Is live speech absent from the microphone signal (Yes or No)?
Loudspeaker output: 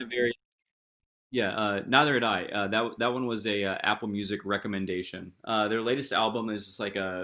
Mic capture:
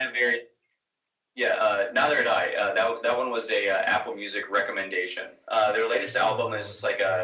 No